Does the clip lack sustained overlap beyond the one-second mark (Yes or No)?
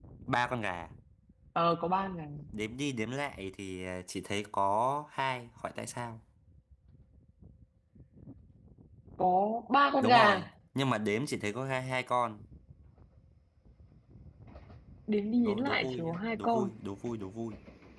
No